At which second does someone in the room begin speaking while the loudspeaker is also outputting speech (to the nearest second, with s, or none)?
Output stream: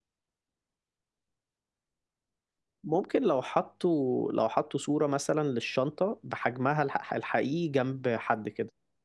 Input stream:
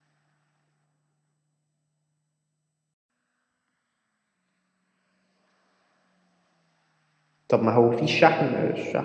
7 s